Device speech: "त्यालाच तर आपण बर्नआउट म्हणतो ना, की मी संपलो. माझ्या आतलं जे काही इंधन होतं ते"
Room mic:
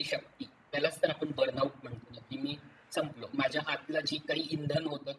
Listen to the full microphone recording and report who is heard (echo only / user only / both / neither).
echo only